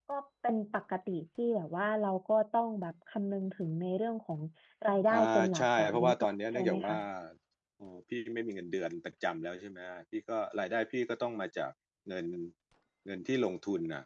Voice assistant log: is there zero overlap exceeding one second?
No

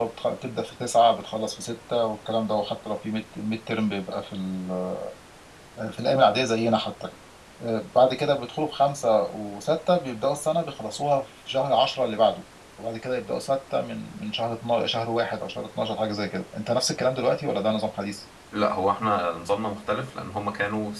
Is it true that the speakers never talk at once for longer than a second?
Yes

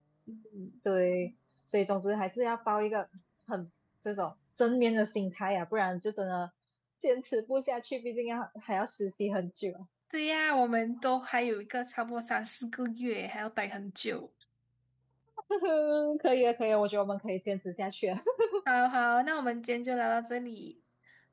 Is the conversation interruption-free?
Yes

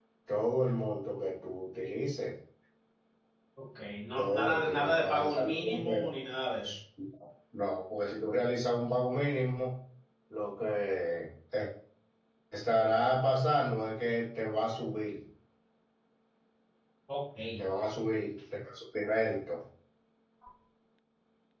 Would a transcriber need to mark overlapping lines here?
Yes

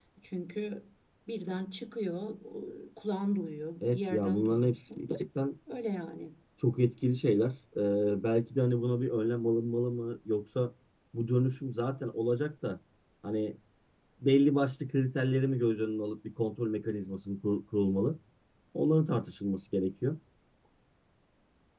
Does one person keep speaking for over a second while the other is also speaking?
Yes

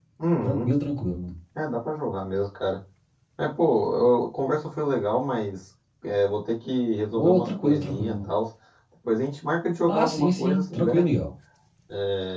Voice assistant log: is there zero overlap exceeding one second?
No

